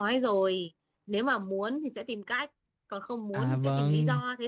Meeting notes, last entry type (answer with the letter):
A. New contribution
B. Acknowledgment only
A